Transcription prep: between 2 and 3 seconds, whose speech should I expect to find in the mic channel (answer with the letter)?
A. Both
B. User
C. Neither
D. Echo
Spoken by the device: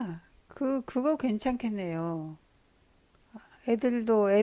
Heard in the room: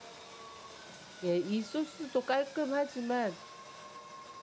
B